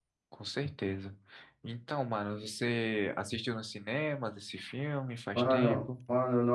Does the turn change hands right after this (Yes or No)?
Yes